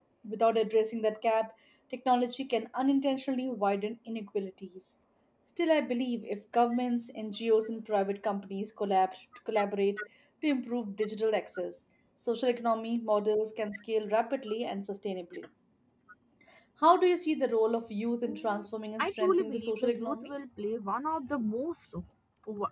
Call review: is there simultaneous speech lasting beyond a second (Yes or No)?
Yes